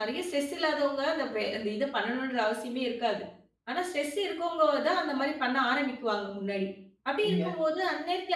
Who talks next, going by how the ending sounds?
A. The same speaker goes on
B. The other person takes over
A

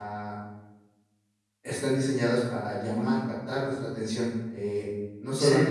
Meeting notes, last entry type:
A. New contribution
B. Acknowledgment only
B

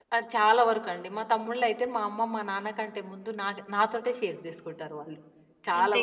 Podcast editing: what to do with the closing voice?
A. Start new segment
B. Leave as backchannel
B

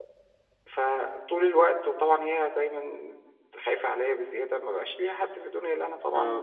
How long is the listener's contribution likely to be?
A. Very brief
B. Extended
B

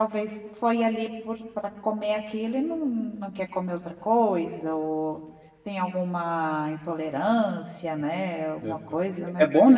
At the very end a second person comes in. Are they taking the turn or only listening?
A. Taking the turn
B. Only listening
A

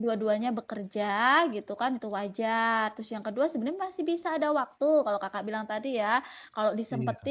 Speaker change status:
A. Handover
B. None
B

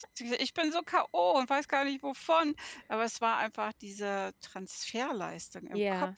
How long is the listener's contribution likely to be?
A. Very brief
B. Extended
B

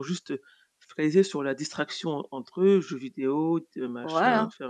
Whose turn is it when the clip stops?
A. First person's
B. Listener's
B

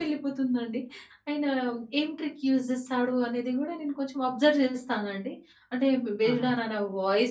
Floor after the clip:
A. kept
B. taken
A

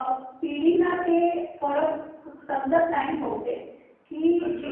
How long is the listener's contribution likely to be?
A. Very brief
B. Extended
A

